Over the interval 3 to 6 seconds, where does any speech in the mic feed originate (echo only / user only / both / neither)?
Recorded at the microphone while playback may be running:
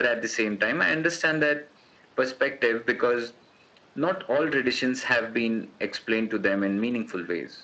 echo only